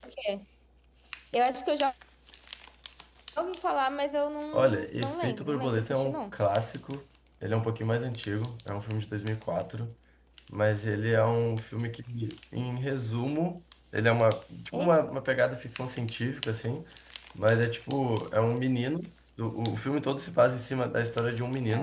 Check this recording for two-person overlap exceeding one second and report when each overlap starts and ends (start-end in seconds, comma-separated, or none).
4.5-6.4